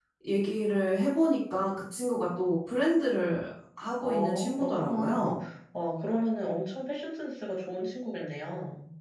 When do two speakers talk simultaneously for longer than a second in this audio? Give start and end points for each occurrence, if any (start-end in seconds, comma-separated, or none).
4.0-5.4